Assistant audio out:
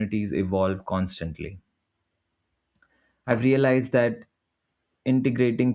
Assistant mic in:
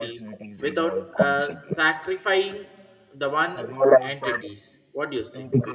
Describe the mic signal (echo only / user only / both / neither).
both